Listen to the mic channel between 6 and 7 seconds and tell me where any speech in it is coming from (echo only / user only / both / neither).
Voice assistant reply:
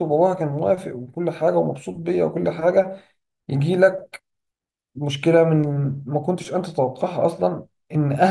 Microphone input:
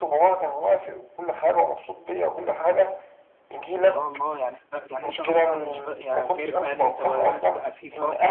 both